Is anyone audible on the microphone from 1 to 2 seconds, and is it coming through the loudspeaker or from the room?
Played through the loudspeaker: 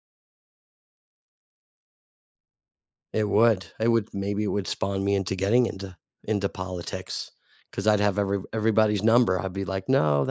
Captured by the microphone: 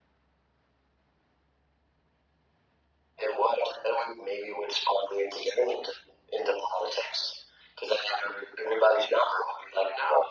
neither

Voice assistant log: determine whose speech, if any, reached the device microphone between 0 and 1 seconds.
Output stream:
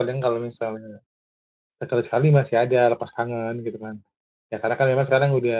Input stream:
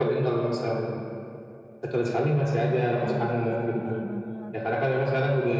echo only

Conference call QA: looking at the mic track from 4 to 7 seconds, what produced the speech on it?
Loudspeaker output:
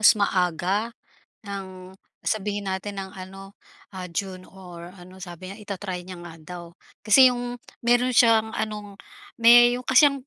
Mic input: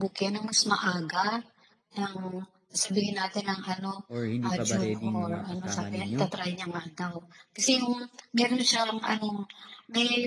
both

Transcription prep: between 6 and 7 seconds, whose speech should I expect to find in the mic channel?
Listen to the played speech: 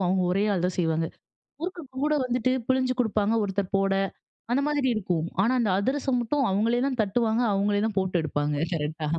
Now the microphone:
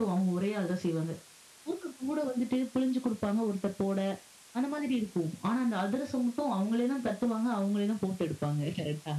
echo only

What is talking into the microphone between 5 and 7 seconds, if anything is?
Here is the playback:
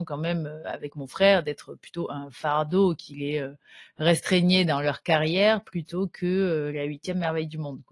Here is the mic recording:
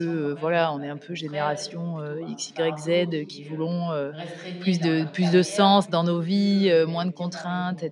both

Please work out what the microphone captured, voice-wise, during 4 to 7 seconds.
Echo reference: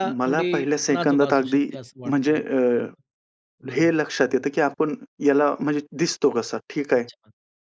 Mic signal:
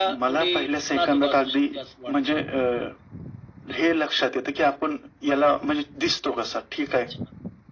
echo only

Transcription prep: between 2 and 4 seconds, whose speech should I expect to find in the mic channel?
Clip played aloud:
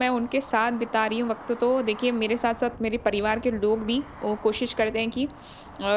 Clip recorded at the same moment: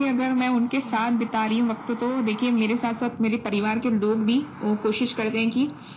echo only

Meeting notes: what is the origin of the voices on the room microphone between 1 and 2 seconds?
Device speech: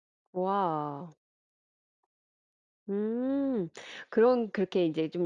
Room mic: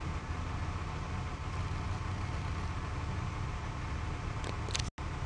neither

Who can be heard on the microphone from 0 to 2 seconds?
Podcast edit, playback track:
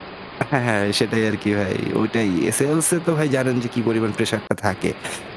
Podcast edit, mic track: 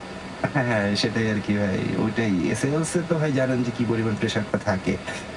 echo only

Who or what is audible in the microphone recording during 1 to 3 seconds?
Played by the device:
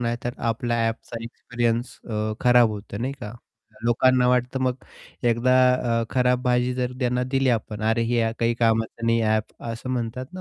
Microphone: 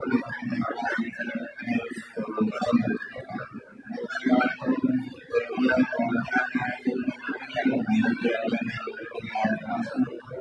echo only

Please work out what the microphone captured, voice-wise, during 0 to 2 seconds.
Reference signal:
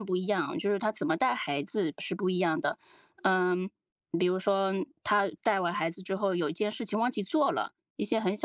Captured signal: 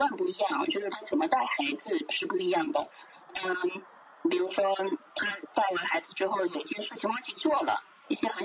echo only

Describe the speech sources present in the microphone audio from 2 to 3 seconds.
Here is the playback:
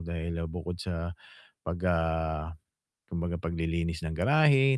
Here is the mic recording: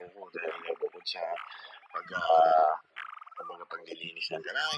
echo only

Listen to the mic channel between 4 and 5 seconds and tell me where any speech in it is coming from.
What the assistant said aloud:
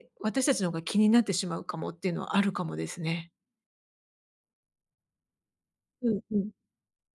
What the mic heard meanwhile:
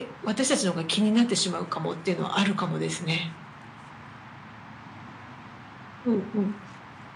neither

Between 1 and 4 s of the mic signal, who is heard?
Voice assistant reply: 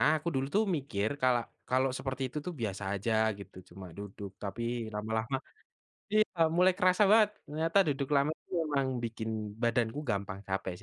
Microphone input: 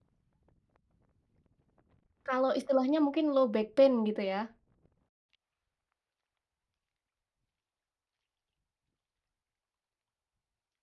user only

